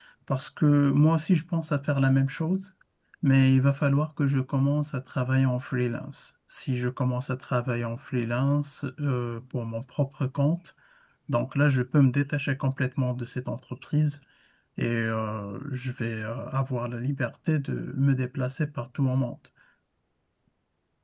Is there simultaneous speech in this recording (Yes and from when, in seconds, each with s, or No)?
No